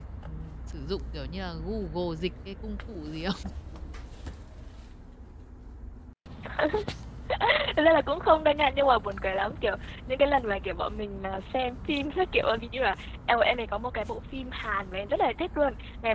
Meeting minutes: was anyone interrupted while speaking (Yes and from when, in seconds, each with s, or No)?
No